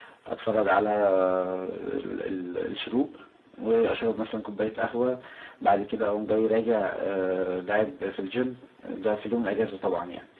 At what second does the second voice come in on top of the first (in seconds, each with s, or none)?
none